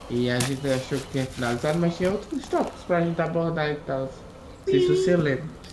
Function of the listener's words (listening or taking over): taking over